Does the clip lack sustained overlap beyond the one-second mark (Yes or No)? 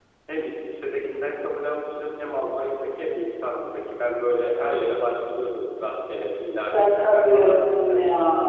No